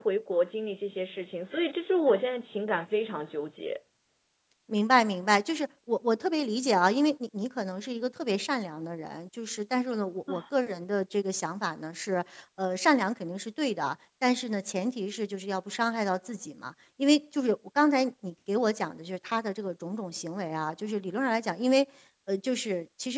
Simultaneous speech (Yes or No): No